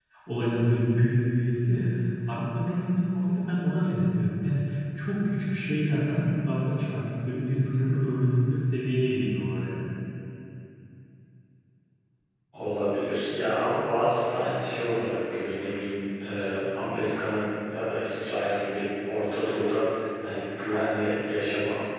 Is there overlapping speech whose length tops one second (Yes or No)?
No